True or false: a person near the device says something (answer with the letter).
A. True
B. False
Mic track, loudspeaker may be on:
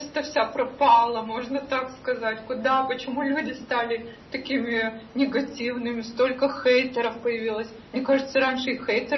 B